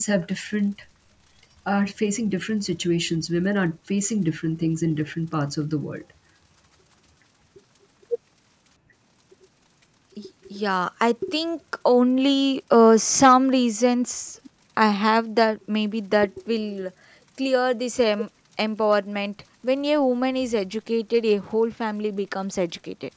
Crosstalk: none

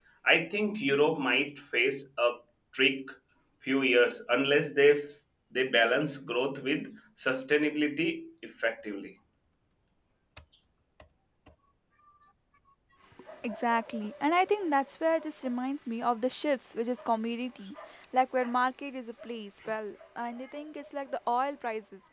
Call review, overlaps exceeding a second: none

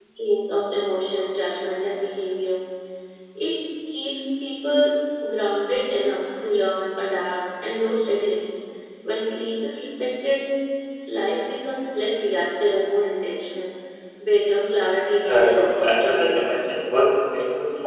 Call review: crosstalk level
present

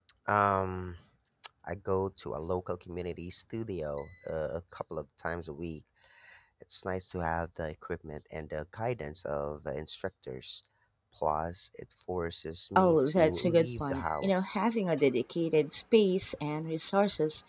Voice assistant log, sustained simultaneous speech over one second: present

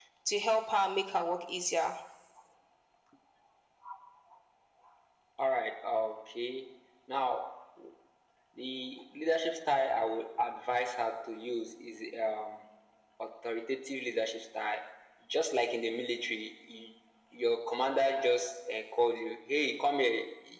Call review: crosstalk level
none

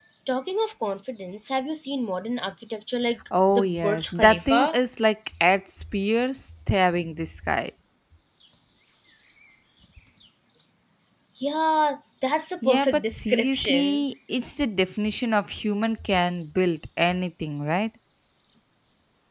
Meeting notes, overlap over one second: present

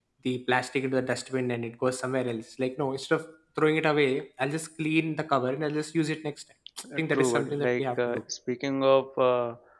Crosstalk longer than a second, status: present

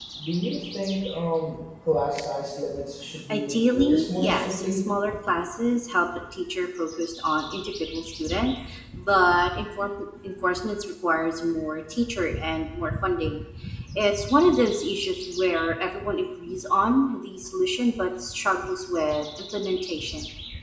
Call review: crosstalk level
present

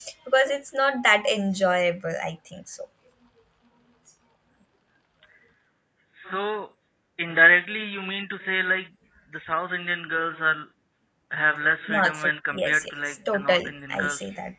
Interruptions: present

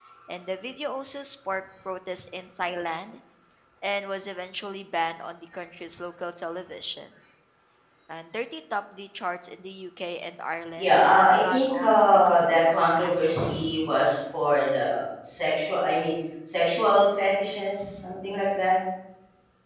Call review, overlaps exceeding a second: present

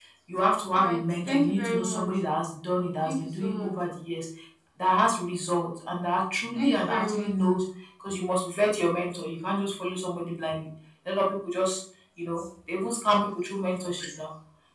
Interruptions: present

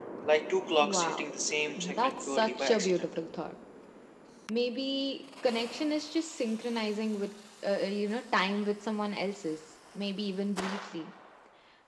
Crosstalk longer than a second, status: present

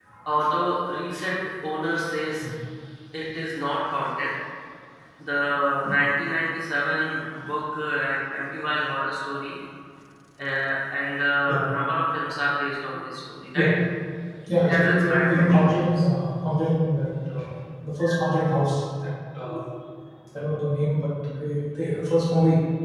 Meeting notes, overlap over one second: present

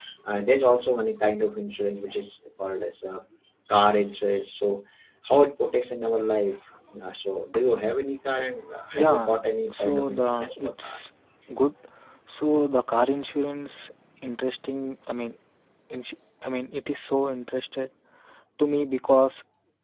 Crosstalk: present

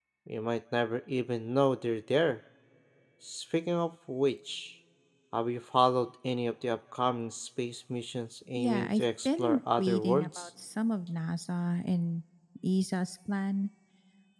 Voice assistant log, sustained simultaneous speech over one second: present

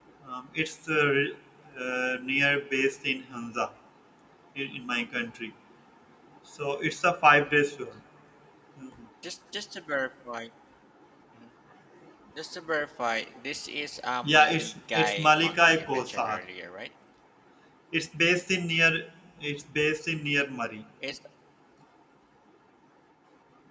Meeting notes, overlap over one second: present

